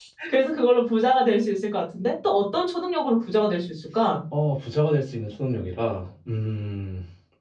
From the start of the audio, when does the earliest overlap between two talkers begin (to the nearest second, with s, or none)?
none